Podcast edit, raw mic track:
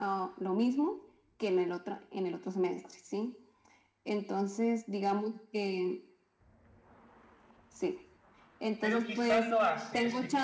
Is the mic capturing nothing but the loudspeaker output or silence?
No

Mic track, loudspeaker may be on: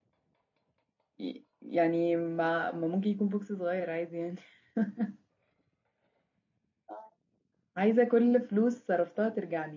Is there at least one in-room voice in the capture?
Yes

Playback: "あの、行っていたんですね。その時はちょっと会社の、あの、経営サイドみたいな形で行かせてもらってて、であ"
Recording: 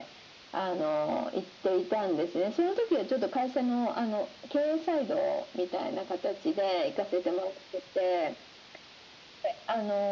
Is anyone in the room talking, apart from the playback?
No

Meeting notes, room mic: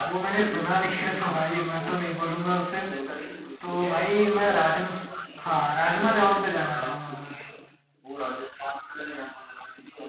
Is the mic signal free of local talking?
No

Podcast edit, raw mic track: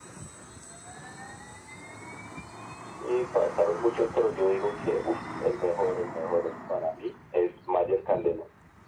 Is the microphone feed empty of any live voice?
Yes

